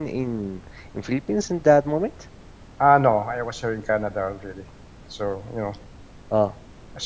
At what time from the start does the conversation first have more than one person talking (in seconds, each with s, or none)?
none